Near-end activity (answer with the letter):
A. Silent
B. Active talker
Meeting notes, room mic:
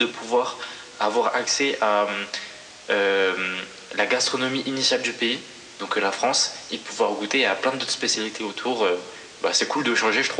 A